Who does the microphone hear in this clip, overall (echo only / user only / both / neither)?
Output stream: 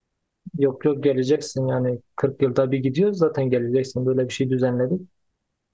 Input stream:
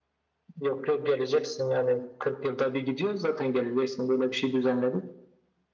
echo only